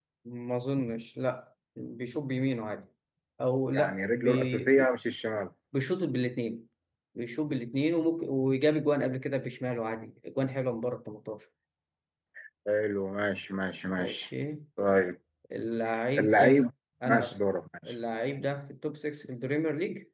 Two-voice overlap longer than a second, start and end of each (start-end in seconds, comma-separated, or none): 3.7-4.9